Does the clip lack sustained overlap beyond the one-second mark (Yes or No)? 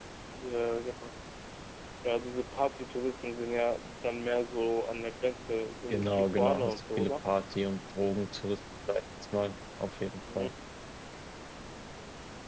No